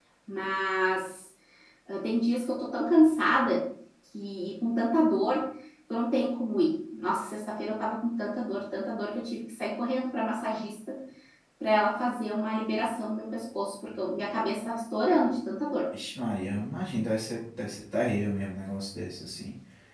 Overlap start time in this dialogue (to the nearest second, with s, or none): none